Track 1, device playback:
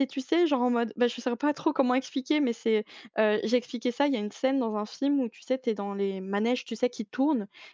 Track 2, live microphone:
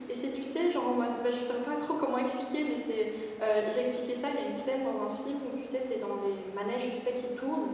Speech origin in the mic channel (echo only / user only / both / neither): echo only